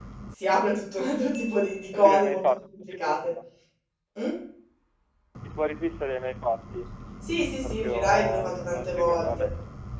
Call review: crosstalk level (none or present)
present